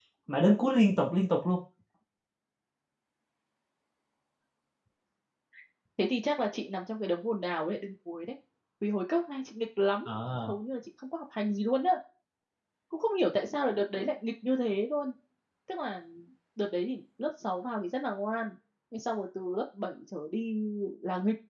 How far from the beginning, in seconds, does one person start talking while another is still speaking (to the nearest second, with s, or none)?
none